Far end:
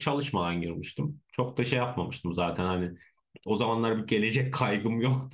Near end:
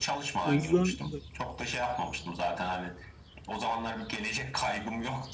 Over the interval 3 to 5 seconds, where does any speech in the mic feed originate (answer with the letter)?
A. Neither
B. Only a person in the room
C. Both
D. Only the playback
D